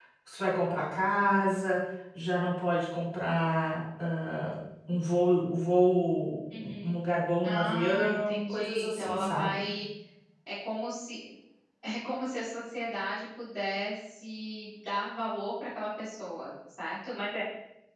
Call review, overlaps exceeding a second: present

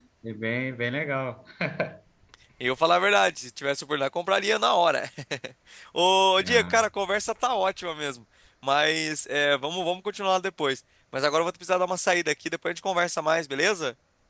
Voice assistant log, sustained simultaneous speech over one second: none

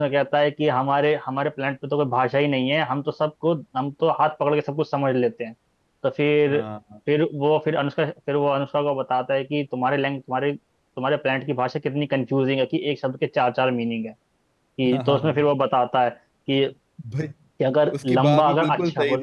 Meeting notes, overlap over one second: present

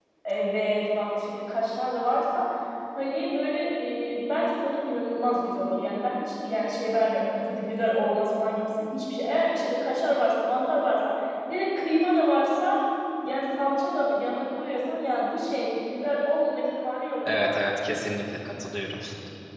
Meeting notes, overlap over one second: none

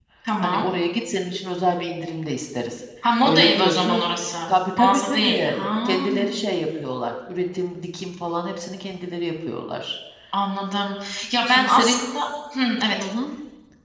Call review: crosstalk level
present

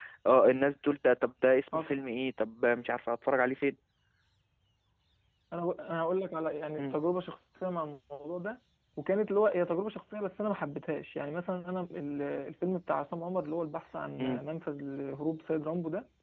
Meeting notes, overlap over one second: none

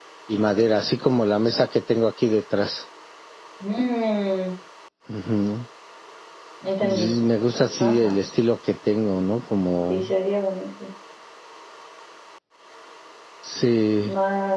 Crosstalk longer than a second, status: none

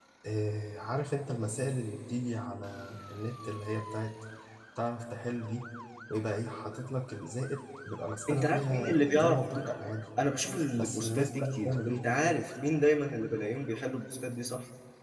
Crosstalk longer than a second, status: present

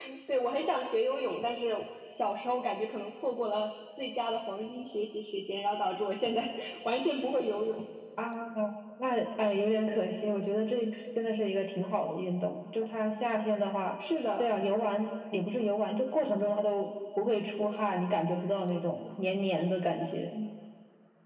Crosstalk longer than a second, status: none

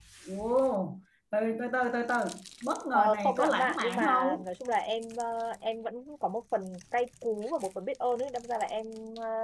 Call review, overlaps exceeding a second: present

